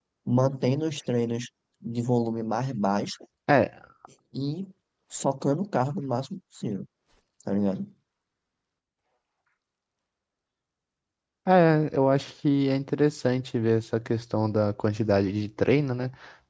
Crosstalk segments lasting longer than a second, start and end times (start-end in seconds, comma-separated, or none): none